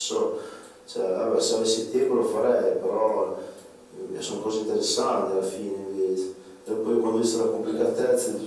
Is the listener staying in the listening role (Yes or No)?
Yes